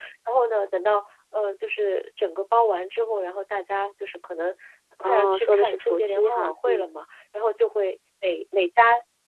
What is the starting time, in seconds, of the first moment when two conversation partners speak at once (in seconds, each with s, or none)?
5.0 s